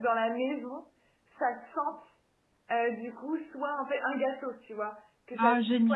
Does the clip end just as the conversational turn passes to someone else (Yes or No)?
No